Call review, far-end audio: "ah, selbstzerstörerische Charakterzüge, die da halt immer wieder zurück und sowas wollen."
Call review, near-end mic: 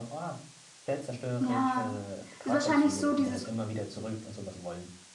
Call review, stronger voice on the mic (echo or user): user